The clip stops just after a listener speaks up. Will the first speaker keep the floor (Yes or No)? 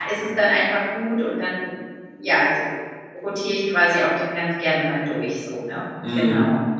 No